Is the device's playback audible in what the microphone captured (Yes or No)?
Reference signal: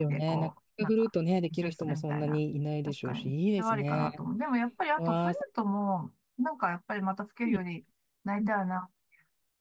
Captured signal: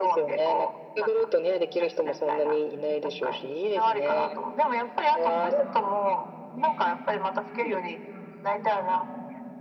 Yes